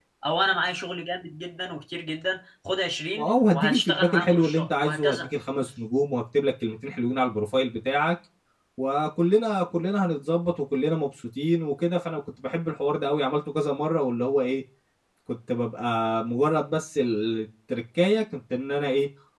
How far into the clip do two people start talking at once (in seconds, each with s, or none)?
3.2 s